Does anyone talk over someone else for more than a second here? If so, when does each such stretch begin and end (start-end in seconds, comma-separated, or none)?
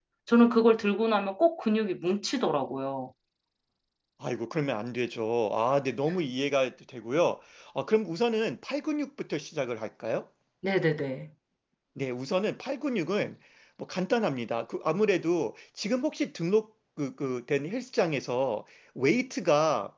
none